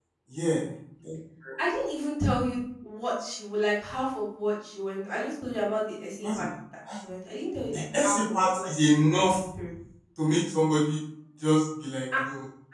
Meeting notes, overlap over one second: present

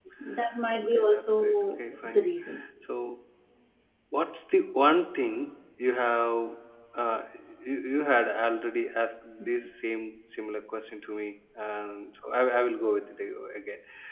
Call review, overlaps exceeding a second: present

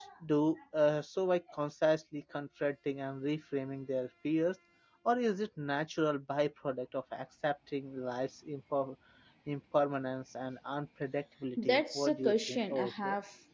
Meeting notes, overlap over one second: present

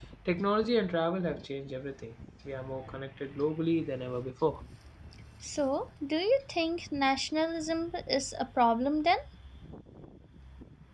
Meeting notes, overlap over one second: none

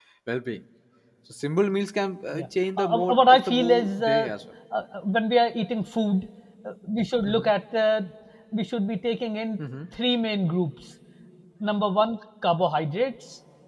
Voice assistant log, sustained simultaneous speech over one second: present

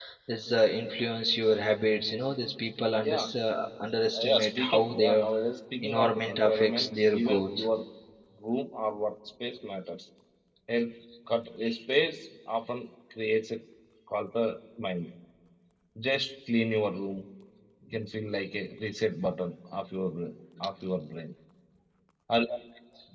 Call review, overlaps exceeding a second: present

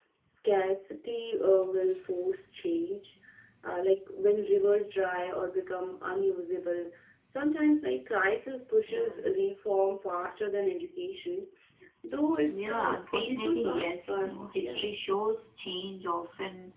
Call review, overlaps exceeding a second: present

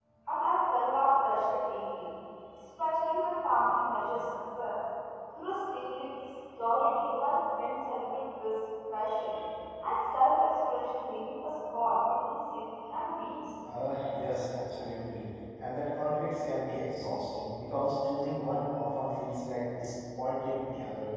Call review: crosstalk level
none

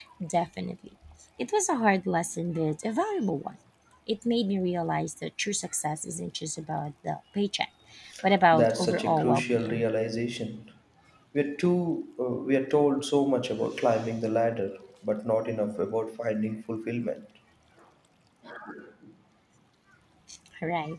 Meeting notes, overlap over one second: present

